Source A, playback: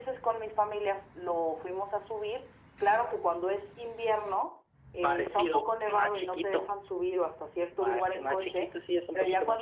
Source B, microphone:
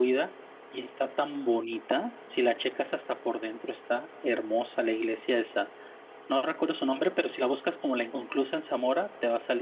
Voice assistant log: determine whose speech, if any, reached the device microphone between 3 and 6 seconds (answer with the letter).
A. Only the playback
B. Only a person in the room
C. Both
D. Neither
B